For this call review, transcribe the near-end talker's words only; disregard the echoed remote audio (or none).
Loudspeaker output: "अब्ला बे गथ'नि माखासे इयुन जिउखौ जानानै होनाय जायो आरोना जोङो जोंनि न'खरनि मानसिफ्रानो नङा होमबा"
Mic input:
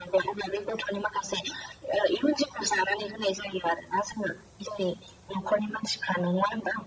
none